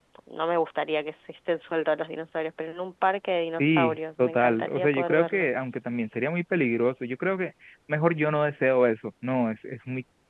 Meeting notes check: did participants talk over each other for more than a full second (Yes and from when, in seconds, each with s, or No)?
Yes, from 3.6 s